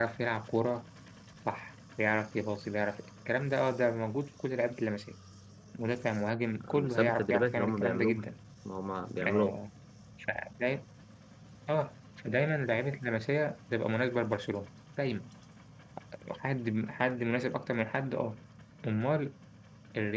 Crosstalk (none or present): present